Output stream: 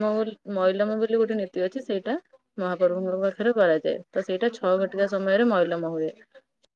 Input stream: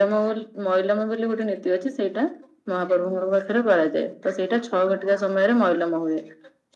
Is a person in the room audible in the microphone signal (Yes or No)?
No